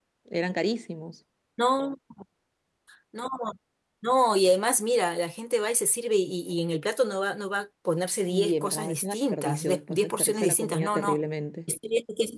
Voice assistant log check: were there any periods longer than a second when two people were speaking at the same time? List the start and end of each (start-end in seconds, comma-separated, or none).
8.3-11.2